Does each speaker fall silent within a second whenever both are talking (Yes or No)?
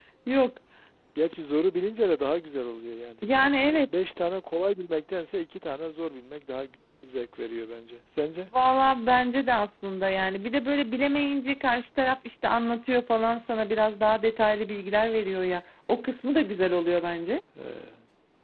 Yes